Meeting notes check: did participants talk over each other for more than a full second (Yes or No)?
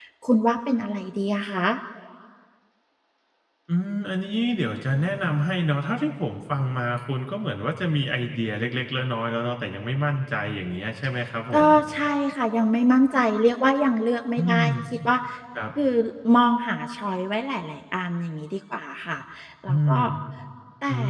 No